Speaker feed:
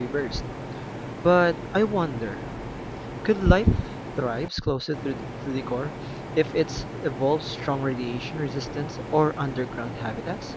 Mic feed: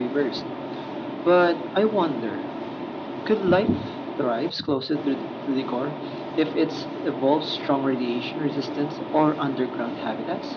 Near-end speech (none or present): none